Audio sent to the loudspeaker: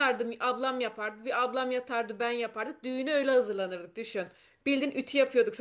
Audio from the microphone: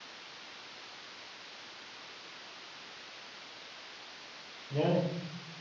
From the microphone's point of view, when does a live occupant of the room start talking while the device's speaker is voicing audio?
4.7 s

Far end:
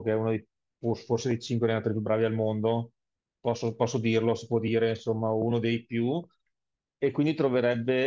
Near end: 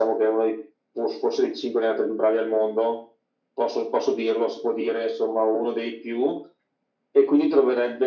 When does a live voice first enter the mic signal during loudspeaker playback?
none

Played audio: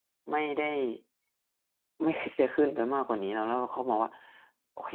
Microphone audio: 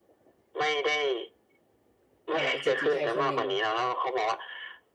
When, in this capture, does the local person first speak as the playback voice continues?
2.3 s

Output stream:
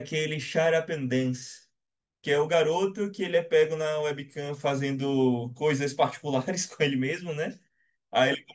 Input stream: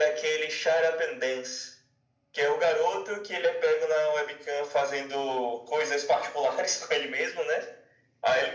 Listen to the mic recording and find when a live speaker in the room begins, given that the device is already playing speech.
none

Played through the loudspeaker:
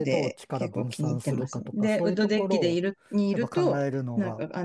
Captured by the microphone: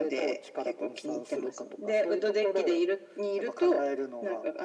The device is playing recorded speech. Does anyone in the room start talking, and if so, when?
none

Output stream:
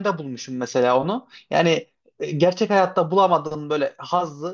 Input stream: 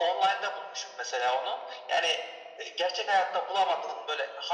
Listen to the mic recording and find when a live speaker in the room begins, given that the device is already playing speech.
none

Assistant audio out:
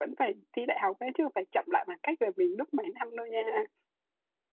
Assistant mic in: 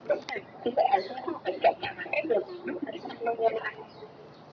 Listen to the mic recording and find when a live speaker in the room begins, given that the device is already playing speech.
none

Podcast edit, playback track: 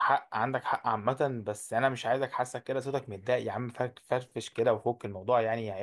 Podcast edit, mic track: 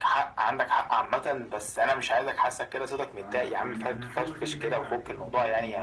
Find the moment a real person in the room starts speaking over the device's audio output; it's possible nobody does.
3.1 s

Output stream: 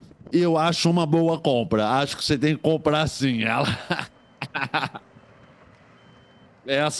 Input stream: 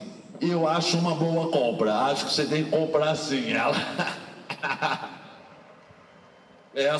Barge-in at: none

